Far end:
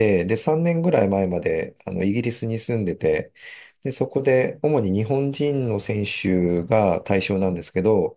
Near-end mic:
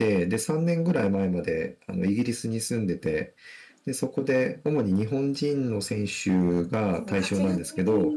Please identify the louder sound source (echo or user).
echo